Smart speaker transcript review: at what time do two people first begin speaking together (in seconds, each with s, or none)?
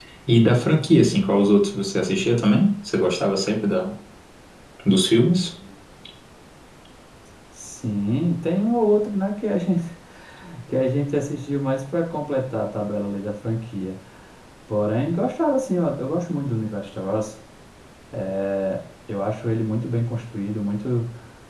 none